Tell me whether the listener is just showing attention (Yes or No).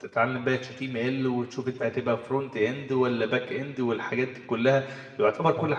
Yes